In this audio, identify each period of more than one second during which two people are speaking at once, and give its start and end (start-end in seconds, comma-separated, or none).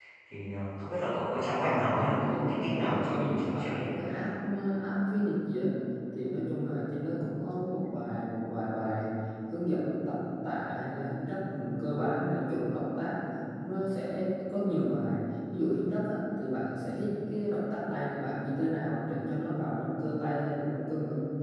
1.6-3.9